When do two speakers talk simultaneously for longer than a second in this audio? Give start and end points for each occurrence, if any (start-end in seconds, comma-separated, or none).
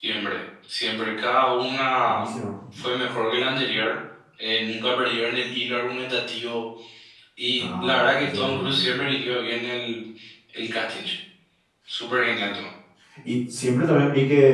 7.6-8.8